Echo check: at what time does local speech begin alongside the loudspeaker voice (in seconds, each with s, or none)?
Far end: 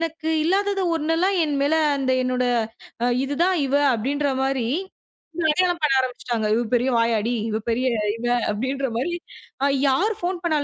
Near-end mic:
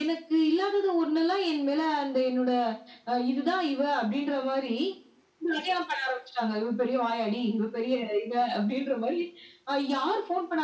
none